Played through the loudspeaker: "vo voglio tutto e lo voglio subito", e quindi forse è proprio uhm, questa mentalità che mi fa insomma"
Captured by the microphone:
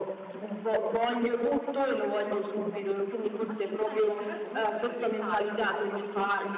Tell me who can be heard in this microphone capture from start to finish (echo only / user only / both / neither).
both